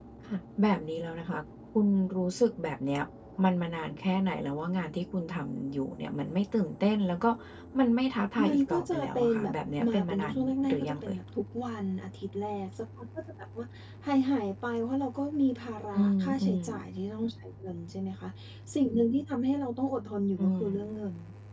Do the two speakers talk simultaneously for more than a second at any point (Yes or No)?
Yes